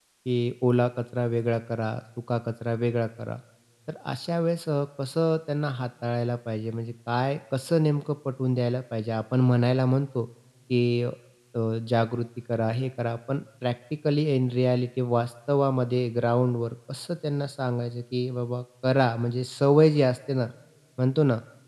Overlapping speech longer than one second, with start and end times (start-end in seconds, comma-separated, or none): none